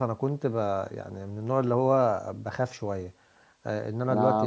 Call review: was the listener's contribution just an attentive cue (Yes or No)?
No